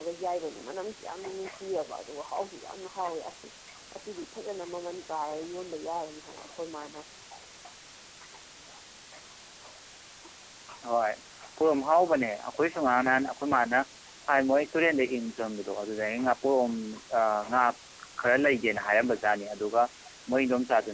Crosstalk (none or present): none